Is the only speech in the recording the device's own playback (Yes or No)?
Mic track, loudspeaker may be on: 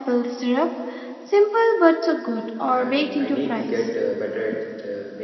No